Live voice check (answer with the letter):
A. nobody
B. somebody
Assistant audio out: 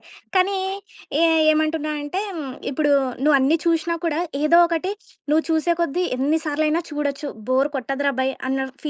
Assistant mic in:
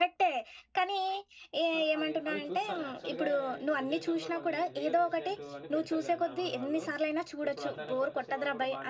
B